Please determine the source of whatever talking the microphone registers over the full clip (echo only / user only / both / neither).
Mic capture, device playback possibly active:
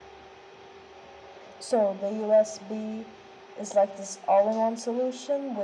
echo only